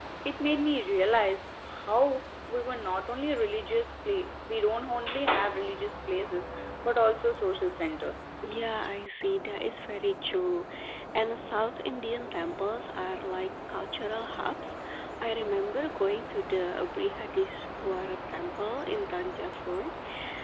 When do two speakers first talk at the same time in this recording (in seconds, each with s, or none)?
none